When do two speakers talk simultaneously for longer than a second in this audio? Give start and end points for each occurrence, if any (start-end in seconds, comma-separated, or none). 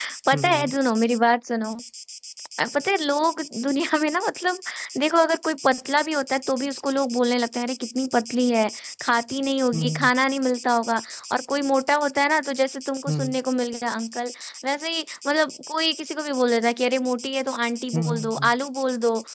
none